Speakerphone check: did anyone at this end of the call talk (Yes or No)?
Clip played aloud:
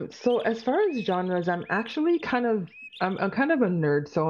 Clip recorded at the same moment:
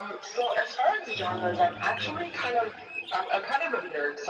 Yes